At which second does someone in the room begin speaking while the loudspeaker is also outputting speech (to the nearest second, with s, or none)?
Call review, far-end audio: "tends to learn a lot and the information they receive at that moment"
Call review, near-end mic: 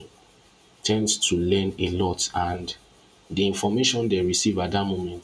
none